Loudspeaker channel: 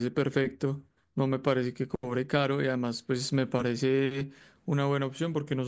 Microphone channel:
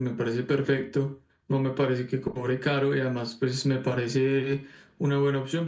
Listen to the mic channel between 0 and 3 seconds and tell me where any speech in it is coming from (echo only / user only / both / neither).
echo only